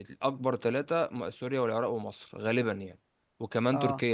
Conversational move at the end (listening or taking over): listening